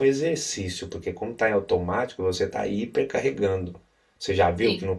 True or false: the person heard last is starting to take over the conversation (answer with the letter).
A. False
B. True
A